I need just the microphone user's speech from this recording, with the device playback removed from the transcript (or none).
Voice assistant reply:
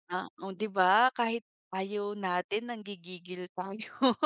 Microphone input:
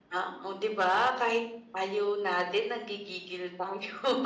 none